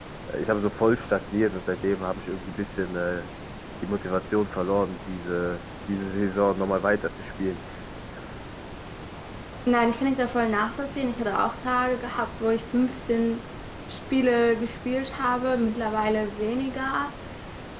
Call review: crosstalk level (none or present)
none